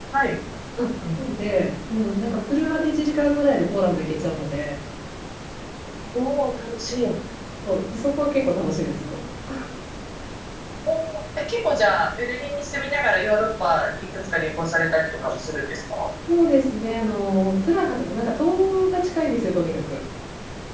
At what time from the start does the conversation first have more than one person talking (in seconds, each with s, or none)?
none